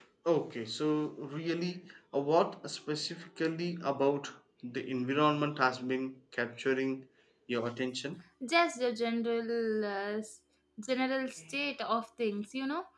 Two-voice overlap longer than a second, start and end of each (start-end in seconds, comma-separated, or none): none